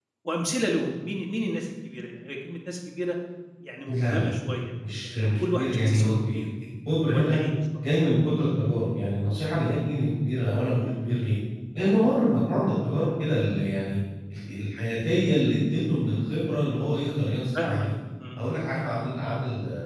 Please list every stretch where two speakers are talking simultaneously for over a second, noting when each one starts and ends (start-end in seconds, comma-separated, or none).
5.0-6.4